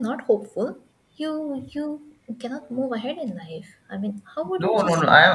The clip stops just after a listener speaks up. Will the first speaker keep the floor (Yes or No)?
No